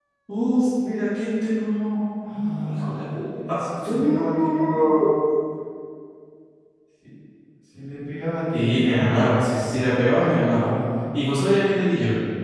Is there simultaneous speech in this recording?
Yes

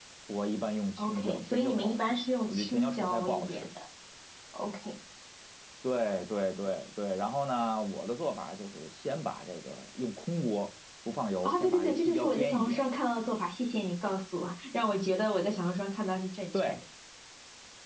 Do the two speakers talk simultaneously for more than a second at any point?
Yes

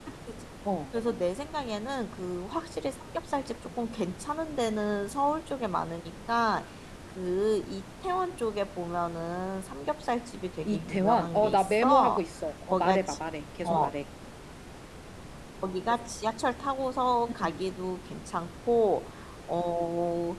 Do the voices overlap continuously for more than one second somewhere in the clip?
Yes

